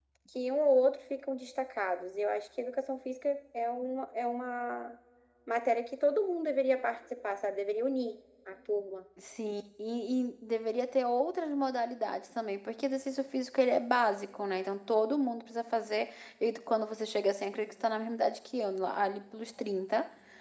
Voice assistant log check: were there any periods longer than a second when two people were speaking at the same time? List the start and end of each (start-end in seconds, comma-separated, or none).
none